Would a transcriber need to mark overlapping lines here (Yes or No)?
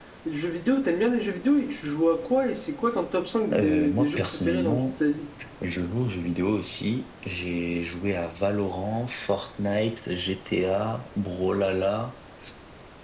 Yes